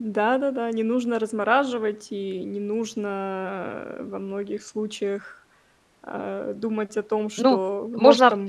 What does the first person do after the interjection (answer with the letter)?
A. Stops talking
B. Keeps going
A